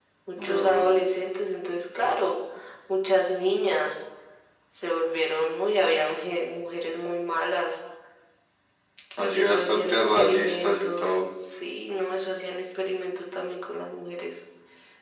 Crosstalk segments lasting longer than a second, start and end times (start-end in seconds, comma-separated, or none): 9.2-11.1